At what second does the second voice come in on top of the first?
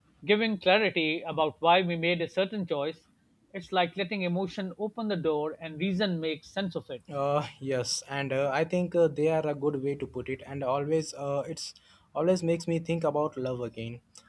none

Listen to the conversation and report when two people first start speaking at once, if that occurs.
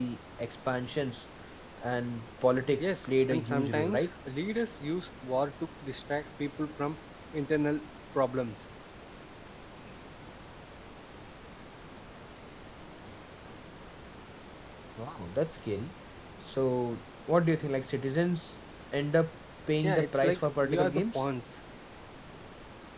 2.8 s

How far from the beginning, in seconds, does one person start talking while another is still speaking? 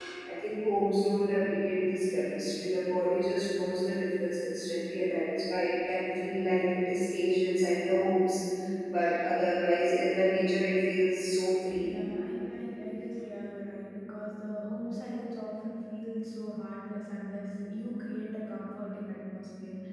none

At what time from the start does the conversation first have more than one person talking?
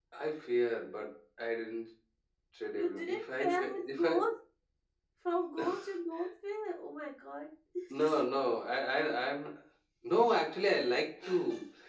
2.8 s

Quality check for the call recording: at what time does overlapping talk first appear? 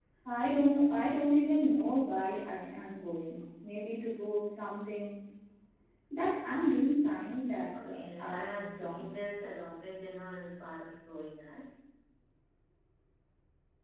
7.7 s

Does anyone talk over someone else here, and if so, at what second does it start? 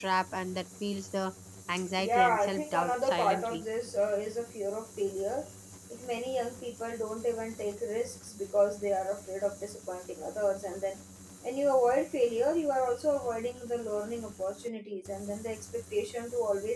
2.0 s

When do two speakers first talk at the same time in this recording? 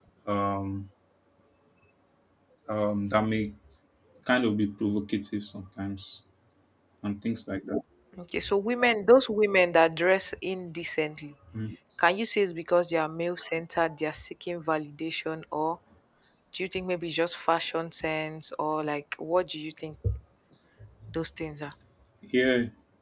none

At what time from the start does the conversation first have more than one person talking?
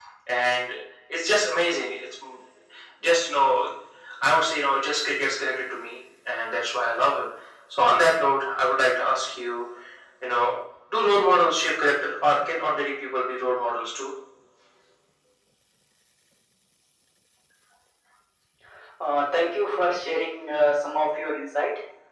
none

